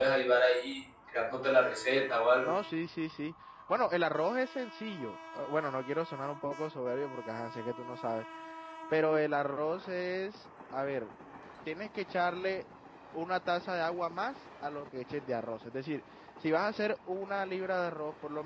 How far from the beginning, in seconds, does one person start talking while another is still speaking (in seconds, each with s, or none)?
none